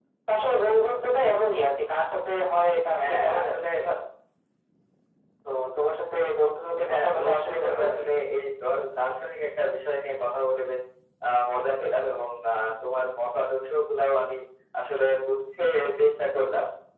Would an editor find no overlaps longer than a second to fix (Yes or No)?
No